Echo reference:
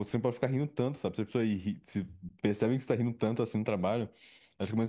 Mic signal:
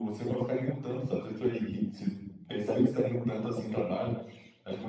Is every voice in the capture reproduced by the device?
Yes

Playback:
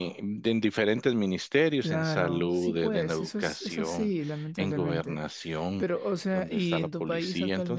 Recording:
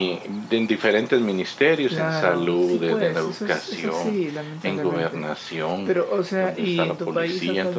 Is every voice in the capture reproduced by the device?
Yes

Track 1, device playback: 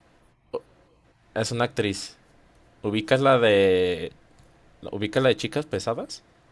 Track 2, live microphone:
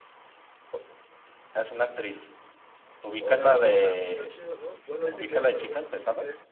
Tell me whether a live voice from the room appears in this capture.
Yes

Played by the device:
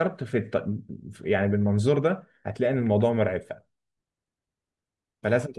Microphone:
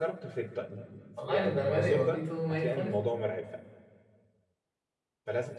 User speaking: Yes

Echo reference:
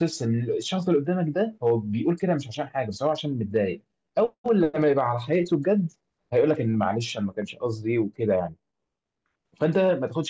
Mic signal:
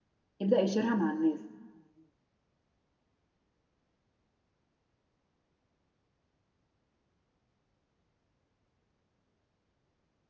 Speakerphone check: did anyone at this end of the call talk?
Yes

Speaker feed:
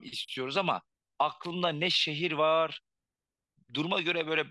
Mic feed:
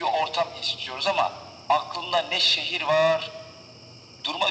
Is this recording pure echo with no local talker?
Yes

